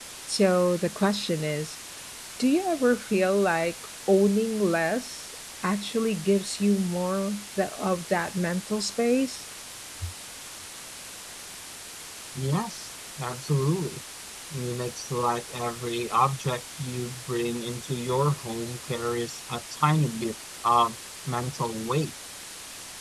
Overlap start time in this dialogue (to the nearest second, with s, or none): none